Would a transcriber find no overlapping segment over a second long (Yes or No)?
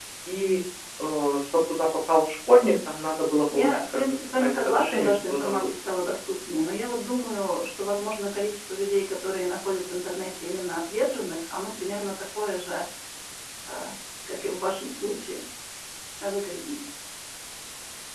No